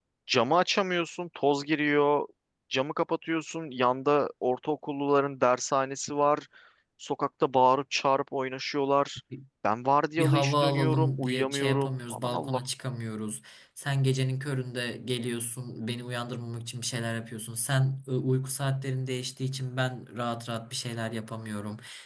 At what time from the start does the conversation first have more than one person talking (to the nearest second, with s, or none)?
10 s